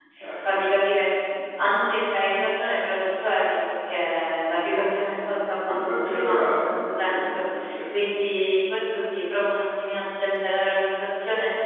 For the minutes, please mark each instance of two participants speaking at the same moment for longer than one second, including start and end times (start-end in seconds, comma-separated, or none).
5.7-7.4